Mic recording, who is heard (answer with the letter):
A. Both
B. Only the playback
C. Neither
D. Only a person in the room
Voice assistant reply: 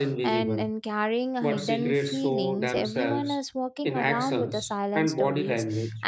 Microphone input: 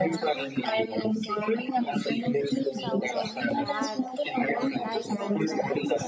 A